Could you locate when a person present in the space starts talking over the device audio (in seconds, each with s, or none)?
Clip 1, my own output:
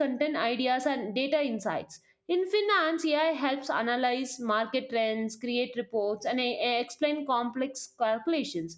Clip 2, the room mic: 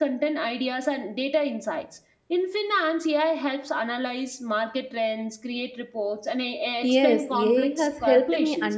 6.8 s